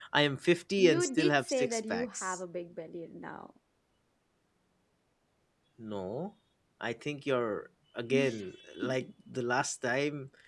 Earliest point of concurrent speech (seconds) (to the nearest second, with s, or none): 1 s